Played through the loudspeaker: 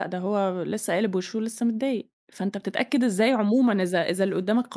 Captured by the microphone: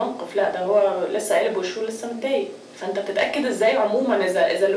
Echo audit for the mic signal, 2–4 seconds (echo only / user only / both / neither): echo only